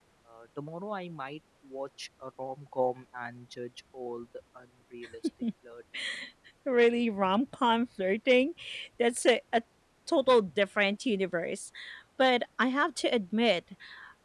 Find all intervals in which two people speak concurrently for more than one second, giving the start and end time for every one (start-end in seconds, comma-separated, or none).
none